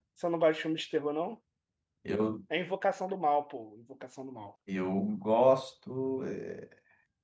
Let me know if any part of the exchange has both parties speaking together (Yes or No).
No